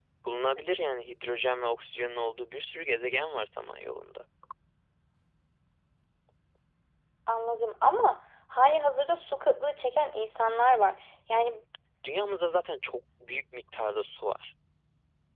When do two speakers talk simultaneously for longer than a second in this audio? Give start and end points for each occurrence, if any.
none

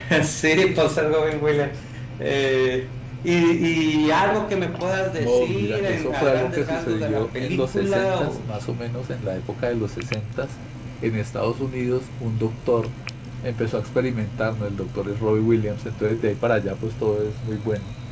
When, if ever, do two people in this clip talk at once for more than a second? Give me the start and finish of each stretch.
5.1-8.5

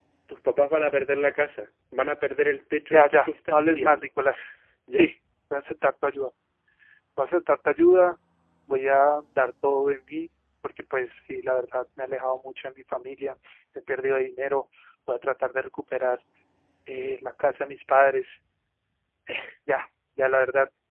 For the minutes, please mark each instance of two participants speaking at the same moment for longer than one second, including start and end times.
2.9-4.1

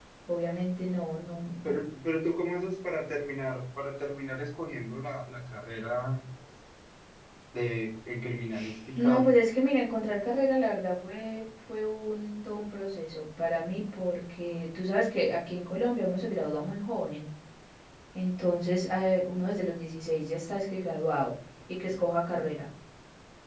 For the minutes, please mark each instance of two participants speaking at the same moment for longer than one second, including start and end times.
none

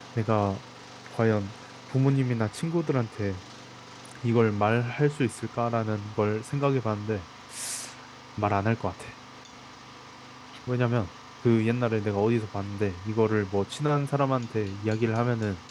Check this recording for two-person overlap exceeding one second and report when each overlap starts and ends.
none

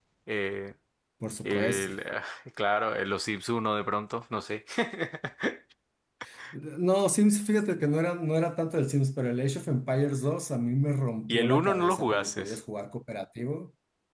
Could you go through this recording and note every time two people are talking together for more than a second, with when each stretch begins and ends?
11.3-12.6

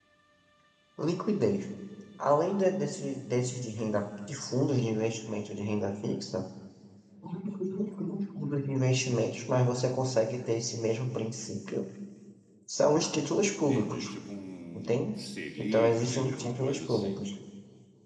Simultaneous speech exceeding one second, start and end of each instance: 15.6-17.2

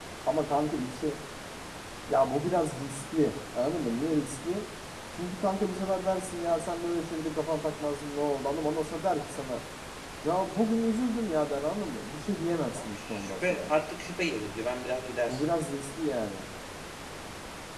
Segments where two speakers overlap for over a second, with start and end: 12.2-13.7

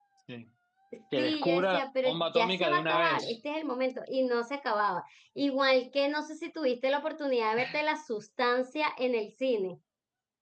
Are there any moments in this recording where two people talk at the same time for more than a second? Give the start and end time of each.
1.2-3.4

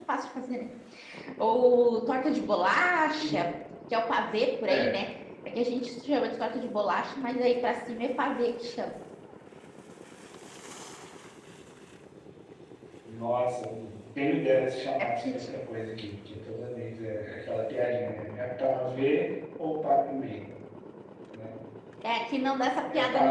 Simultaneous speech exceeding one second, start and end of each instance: none

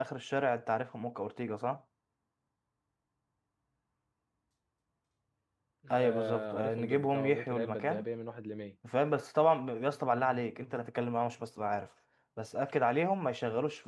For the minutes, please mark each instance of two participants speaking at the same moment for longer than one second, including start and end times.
6.0-8.0

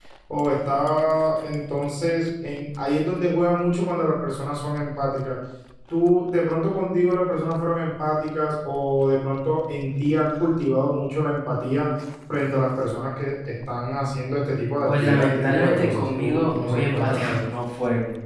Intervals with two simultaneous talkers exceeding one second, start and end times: 14.9-17.4

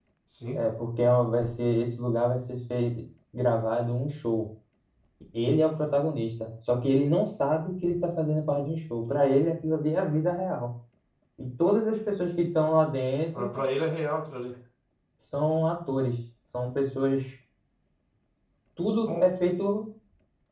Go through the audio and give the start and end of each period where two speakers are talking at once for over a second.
none

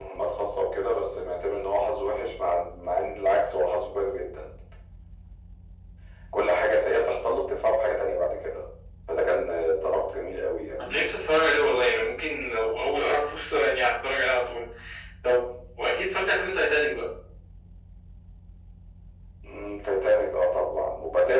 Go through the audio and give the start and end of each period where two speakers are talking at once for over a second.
none

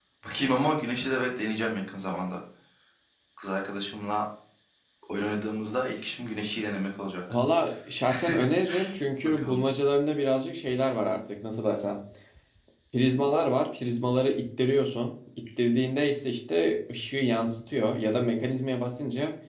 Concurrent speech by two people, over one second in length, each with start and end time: none

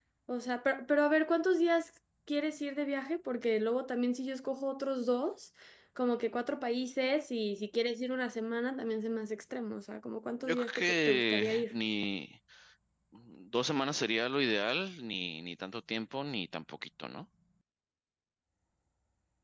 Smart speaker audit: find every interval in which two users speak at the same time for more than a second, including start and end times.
10.3-11.7

